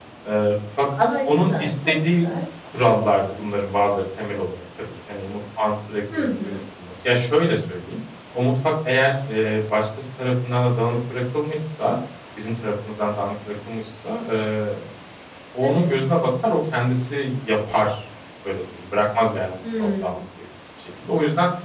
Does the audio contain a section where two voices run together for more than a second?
Yes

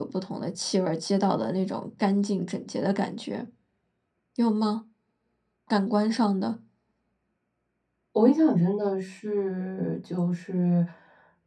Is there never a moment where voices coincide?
Yes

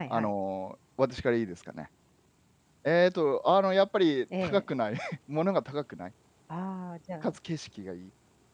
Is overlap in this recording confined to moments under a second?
Yes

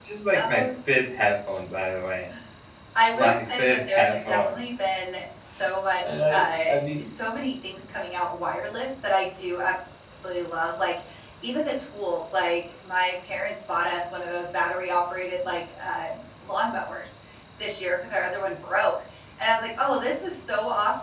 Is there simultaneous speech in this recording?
Yes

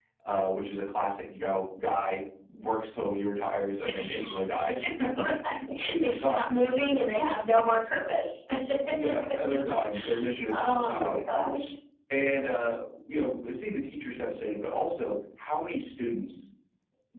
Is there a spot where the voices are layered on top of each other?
Yes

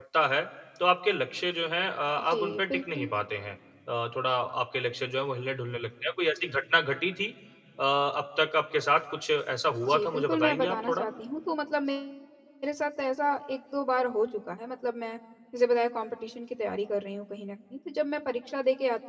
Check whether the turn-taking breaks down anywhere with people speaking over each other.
Yes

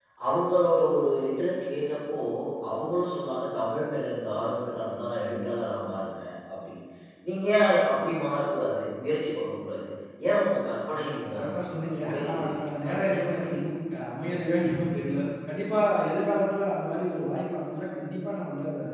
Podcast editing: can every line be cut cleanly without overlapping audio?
No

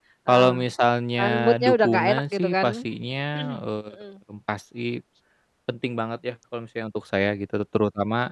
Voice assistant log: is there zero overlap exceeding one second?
No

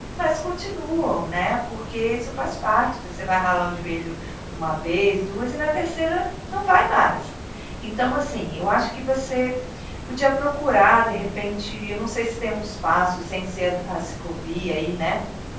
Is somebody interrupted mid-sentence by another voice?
No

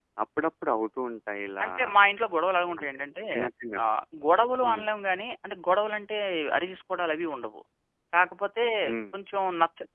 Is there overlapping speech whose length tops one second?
No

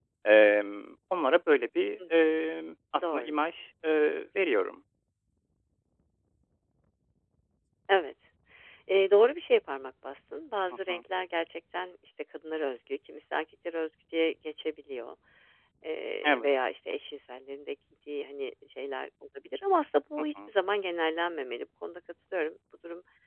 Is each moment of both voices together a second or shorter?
Yes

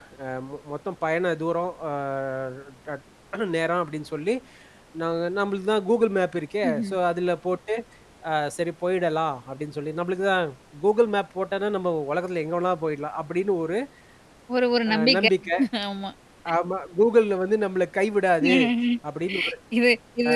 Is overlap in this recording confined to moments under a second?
Yes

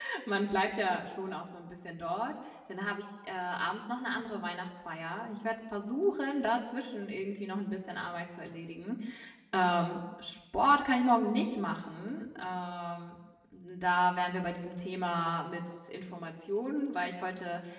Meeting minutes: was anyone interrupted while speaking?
No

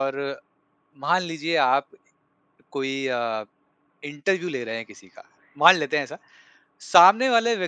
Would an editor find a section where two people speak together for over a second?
No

